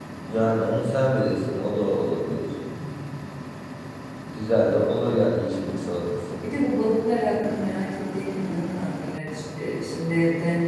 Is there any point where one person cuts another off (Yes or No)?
No